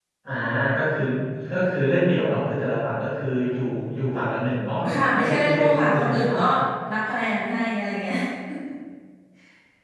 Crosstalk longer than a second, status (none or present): present